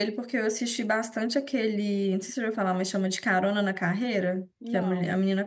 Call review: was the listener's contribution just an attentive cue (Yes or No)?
Yes